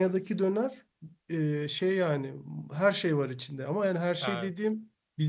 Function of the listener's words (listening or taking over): listening